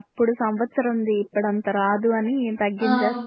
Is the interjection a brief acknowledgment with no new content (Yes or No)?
No